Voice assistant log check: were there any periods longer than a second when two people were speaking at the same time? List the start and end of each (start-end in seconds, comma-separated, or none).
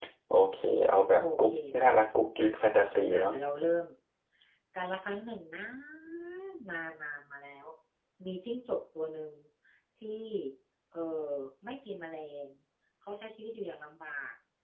1.2-2.5